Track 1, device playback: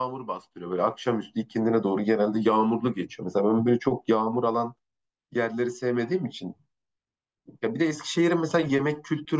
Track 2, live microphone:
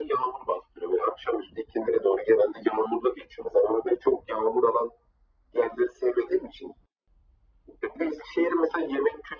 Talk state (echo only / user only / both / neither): echo only